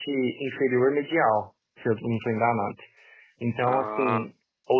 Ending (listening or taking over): listening